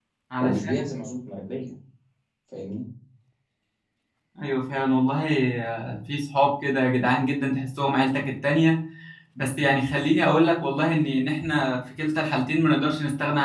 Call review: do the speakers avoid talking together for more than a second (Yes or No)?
Yes